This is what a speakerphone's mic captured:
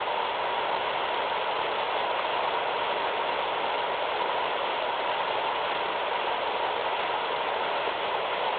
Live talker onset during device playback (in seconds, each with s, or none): none